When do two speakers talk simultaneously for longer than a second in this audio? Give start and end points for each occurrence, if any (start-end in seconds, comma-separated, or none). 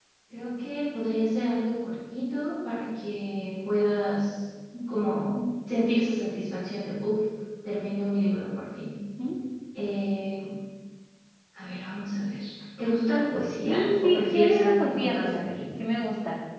13.7-15.7